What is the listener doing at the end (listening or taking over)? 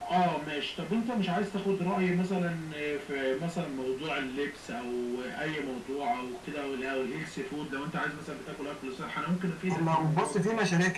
taking over